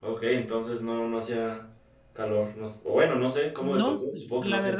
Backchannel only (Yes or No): No